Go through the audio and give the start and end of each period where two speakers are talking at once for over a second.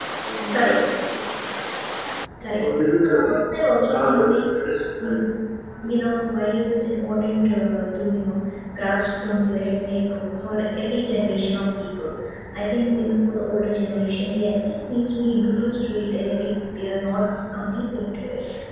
3.2-4.4

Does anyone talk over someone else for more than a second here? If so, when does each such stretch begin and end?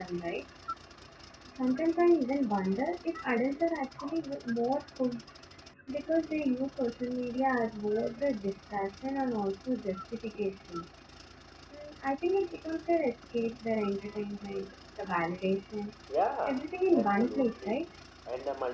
16.5-17.9

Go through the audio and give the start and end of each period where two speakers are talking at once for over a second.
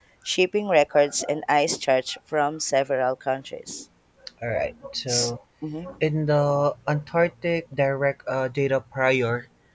none

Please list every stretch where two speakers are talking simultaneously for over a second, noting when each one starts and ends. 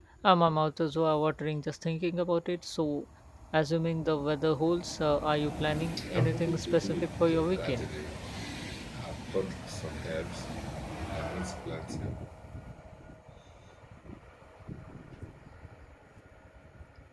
6.2-7.9

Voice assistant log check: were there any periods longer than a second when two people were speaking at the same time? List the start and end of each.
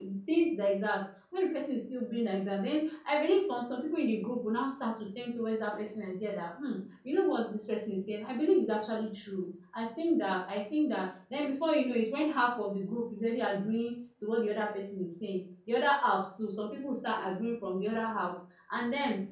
none

